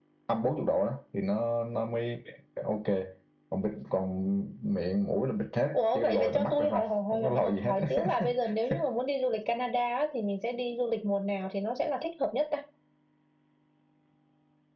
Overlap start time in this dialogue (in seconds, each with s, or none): 5.7 s